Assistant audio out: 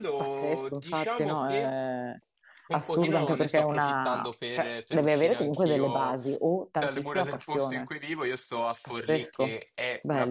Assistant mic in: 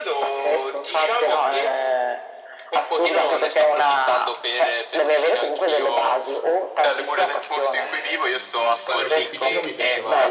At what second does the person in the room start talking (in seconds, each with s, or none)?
7.8 s